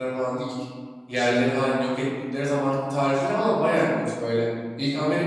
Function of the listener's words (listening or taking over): listening